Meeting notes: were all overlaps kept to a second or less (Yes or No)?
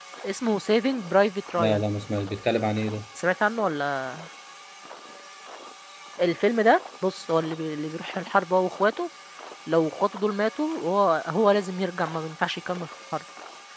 Yes